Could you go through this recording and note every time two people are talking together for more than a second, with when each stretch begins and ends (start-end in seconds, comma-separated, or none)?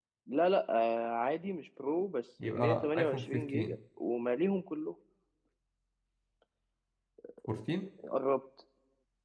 2.4-3.7